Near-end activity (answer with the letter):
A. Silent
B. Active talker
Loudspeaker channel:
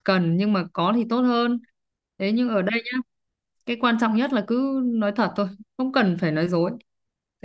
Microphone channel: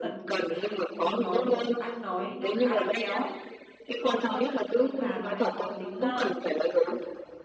B